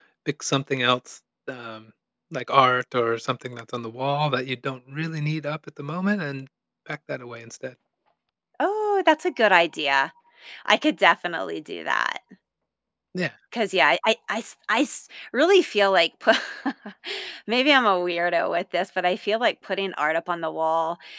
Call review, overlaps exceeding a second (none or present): none